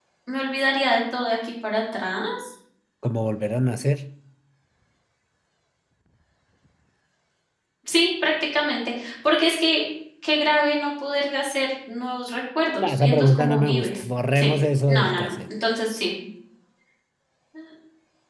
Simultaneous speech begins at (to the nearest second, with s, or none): 13 s